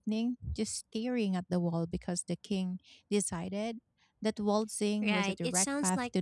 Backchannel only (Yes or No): No